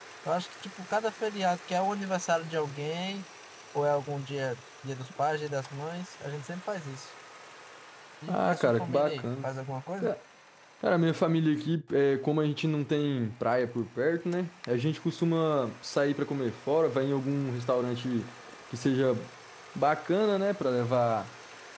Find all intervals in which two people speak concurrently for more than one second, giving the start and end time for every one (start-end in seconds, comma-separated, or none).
8.3-9.5